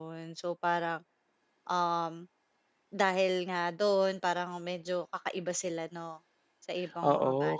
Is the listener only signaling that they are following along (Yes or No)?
No